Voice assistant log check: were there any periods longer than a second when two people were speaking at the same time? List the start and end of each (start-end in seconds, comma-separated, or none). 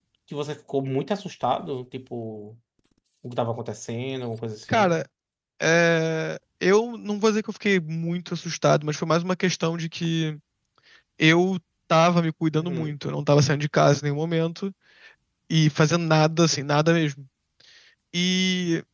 none